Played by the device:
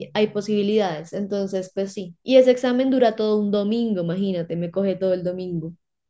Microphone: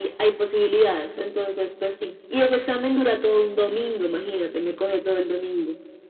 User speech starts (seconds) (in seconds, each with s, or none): none